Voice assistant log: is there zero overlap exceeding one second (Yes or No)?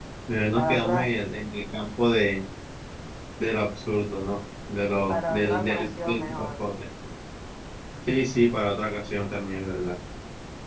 No